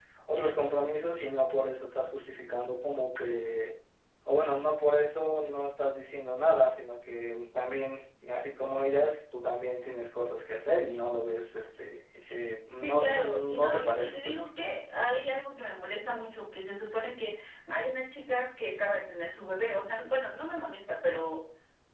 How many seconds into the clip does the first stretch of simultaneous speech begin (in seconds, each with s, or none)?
12.8 s